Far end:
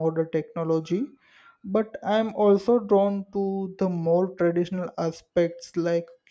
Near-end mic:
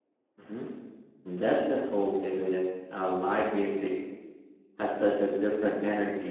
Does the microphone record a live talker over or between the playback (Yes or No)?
Yes